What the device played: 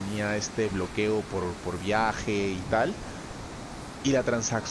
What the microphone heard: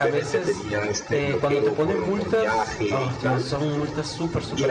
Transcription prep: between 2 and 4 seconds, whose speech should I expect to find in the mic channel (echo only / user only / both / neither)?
both